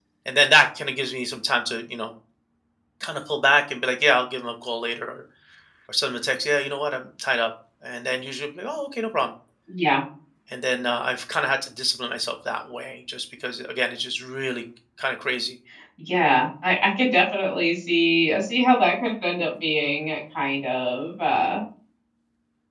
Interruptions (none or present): none